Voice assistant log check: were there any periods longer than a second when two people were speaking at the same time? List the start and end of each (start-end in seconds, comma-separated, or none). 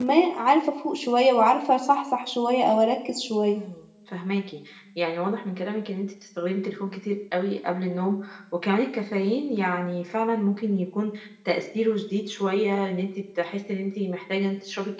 none